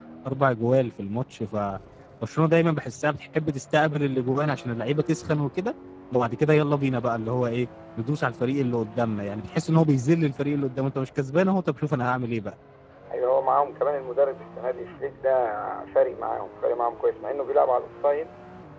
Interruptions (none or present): none